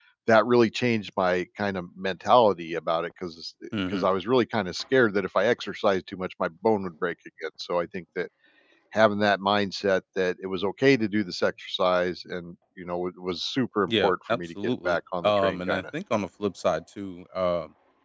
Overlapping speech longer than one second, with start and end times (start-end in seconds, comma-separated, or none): 13.9-15.8